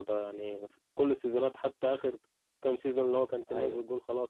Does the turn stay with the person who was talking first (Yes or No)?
Yes